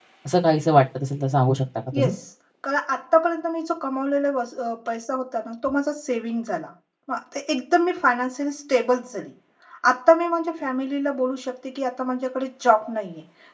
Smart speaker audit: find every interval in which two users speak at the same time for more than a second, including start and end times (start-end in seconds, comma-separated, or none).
none